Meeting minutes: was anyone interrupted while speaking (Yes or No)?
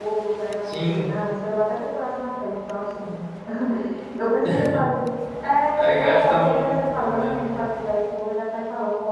Yes